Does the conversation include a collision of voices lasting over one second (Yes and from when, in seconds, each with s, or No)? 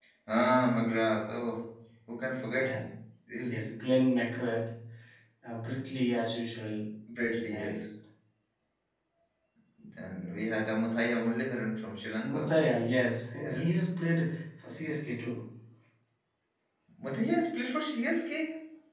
No